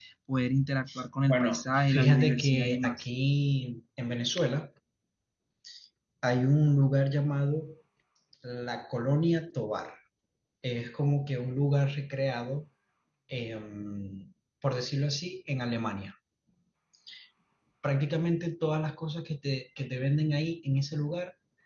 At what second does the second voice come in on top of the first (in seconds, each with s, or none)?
1.3 s